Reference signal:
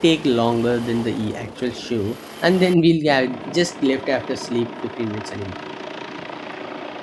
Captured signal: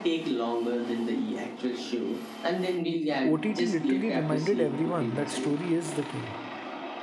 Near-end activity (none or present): present